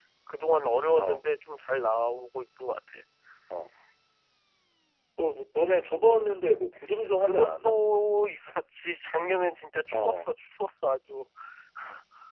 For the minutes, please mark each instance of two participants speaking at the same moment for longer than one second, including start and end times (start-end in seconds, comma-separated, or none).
none